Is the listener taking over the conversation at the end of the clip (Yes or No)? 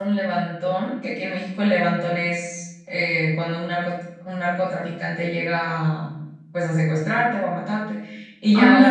No